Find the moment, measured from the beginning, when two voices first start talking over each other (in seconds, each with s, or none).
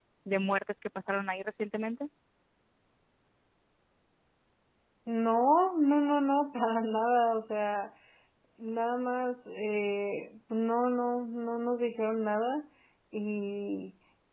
none